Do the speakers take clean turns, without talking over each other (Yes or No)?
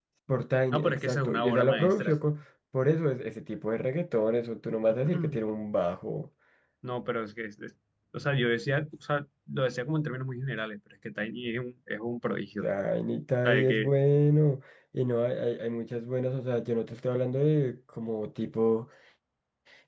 No